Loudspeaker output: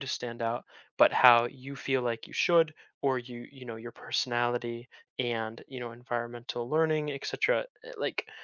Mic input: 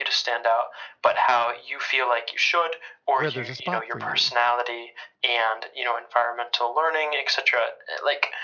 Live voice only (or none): where there's a spot for you